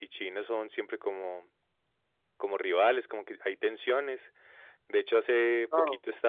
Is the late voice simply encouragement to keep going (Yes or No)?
Yes